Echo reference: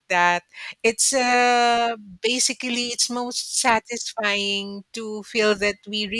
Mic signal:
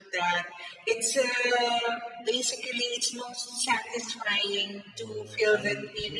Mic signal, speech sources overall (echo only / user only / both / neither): both